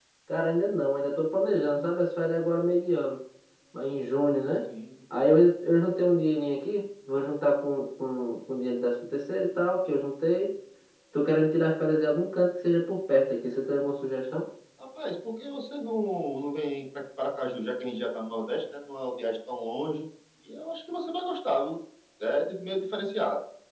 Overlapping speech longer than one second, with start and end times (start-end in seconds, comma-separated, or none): none